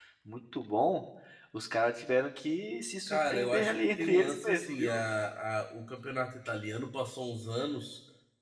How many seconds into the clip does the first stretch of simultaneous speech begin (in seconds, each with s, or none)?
3.1 s